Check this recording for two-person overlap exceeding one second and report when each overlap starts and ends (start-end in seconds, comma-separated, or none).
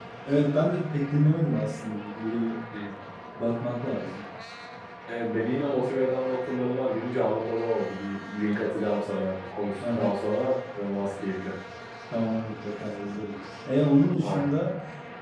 none